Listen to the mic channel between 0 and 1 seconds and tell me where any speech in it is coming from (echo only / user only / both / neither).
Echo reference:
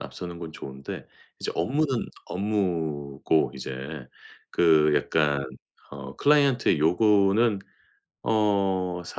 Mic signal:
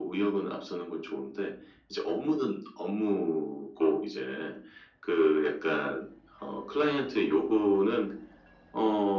echo only